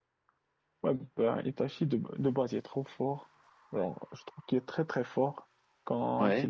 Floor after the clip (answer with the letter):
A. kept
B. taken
A